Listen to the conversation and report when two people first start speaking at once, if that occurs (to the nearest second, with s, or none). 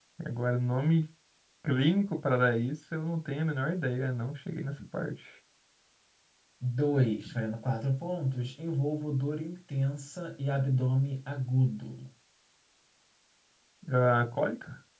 none